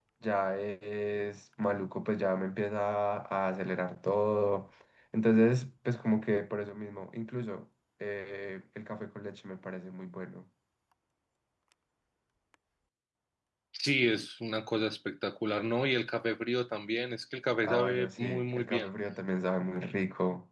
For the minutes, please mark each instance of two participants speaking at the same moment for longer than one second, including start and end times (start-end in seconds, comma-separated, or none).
17.6-18.9